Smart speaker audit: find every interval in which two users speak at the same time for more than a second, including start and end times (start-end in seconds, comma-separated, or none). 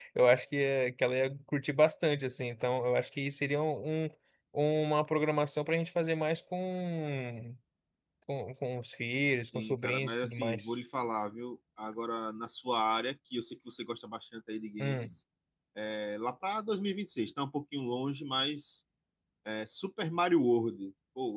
9.4-10.7